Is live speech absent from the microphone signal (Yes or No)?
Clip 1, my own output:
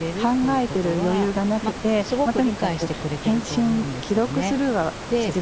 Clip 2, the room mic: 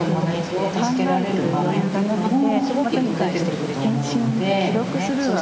No